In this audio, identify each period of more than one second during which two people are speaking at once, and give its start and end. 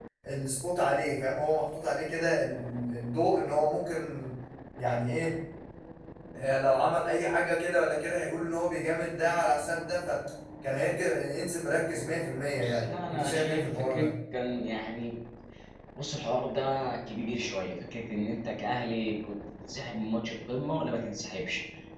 12.5-14.1

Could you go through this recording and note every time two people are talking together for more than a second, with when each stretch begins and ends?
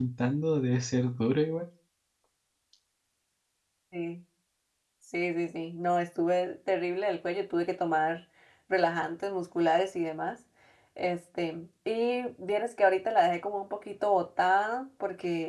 none

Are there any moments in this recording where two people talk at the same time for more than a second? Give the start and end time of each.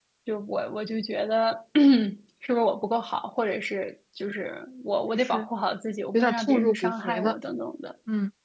6.1-7.4

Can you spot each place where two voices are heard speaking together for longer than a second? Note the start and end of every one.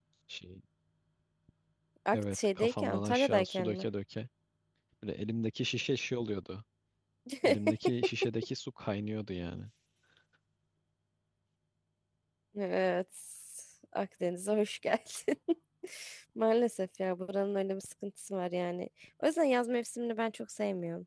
2.1-3.8

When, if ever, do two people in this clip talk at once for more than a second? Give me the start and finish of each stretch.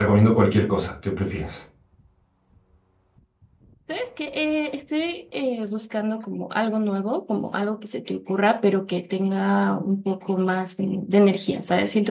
none

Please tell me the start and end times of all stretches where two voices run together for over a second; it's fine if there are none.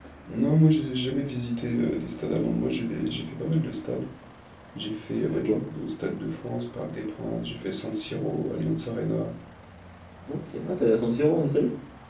none

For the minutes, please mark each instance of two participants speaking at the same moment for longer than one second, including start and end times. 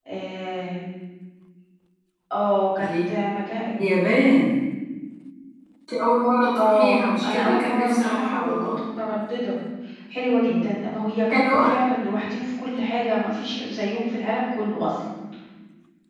6.6-8.8

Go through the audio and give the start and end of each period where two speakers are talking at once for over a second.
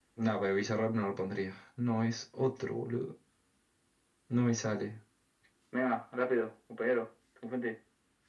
none

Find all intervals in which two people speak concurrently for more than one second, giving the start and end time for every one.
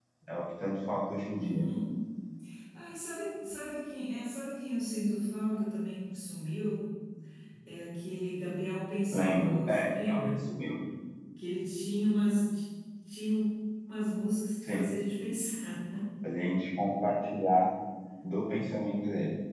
9.1-10.4

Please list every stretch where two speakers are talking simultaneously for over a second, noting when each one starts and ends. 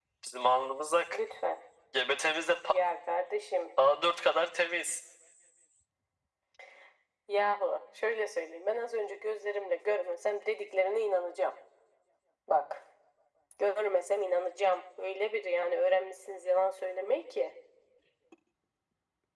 none

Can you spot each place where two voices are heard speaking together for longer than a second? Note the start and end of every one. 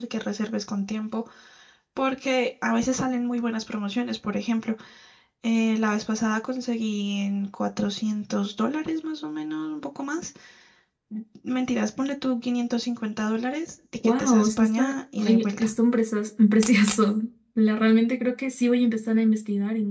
14.0-15.8

